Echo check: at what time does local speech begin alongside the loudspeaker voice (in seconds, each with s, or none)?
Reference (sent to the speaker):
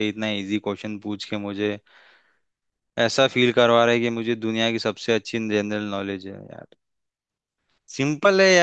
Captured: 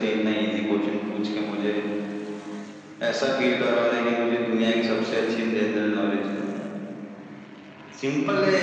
none